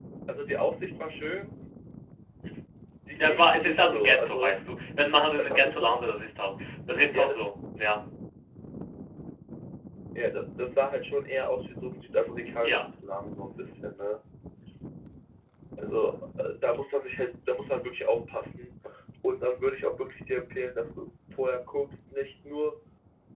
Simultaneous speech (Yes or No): Yes